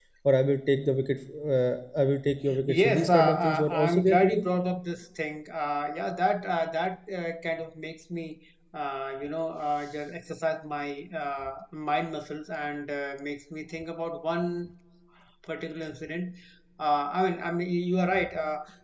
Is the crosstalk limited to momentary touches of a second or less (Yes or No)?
No